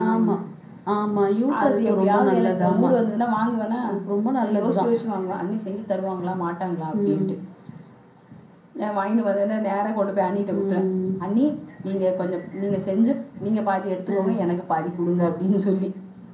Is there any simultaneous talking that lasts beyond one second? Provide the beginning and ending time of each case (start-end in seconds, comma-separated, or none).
1.6-2.9